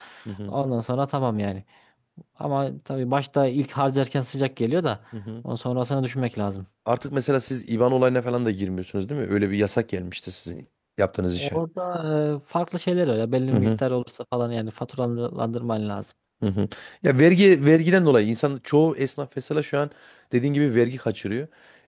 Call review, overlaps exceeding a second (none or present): none